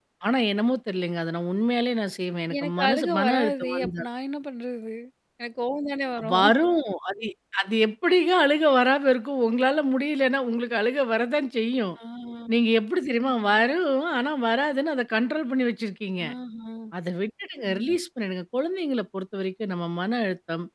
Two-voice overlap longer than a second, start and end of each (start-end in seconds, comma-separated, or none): 2.6-4.0